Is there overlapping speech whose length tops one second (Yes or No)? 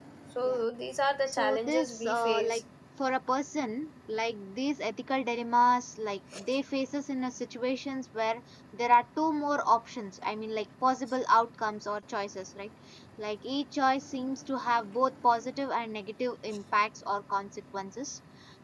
Yes